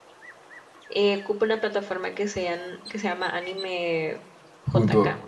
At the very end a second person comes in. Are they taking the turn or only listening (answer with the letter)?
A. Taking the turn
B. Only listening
A